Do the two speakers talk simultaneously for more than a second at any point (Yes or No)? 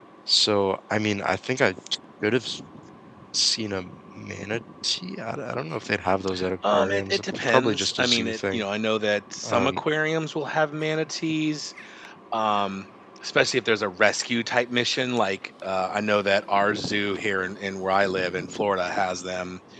Yes